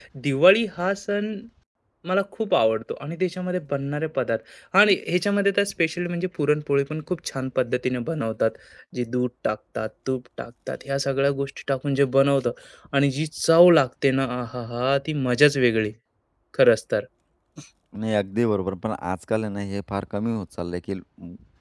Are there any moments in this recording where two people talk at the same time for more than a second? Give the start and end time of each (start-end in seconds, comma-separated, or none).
none